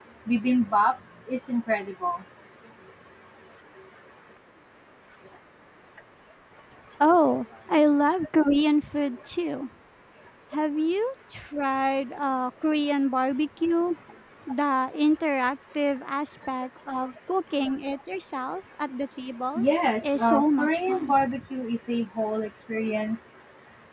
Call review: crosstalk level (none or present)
present